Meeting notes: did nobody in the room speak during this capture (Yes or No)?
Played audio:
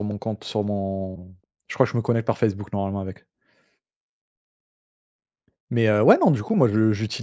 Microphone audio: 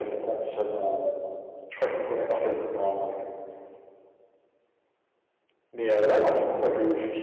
Yes